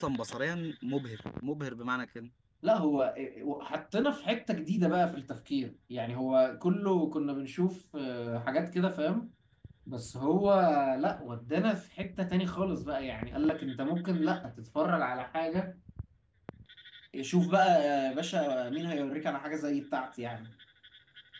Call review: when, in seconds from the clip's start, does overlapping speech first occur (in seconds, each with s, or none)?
none